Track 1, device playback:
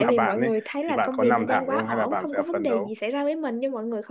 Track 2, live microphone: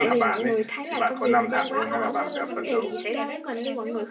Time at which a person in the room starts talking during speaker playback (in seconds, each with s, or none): 1.8 s